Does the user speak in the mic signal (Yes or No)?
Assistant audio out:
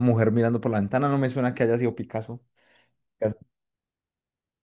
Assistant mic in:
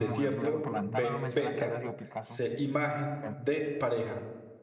Yes